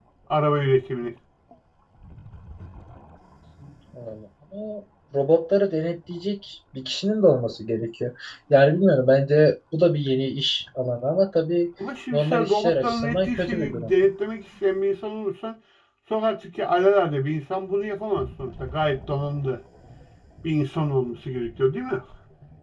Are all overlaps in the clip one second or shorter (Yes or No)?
No